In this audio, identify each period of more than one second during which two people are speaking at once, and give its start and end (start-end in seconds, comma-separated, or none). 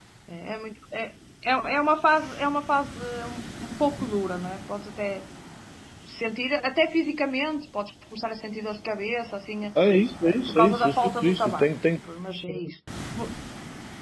10.2-11.7